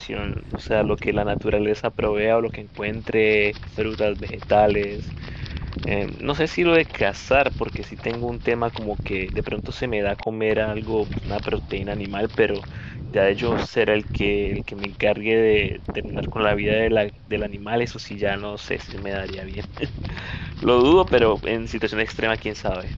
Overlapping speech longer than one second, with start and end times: none

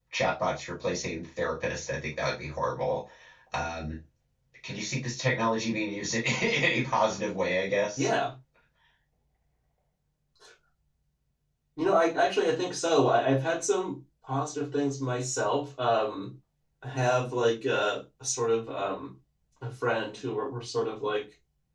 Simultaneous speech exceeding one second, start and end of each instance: none

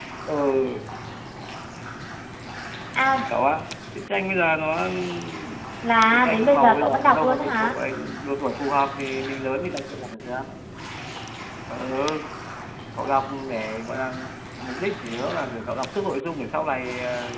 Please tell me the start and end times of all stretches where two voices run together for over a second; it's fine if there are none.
6.1-7.8

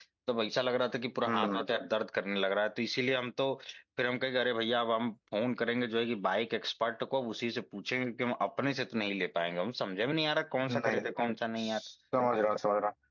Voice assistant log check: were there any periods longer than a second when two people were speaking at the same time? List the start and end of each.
none

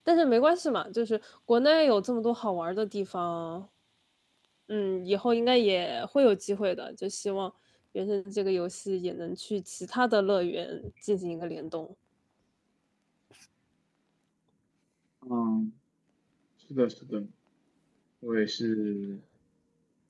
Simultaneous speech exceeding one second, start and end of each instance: none

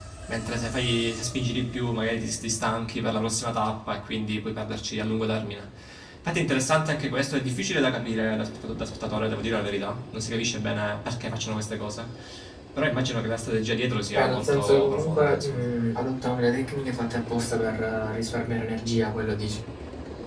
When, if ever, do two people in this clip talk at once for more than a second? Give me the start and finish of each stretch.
14.1-15.7

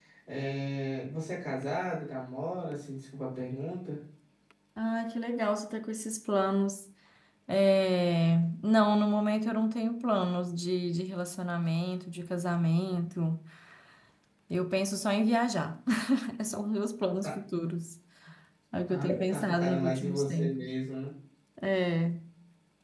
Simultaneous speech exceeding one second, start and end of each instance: 18.9-20.7

